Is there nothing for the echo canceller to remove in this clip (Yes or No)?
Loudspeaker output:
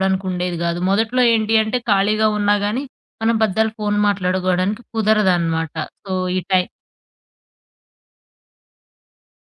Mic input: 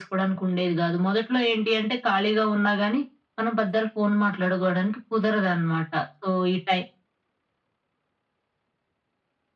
No